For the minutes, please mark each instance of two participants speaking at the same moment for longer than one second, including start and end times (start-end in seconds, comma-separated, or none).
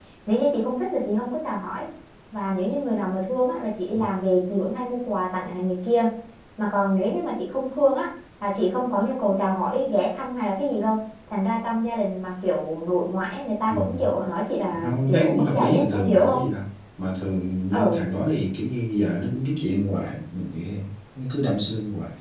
14.8-16.4